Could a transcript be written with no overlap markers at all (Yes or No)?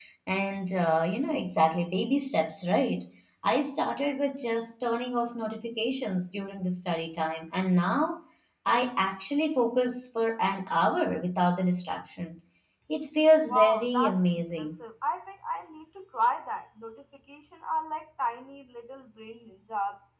No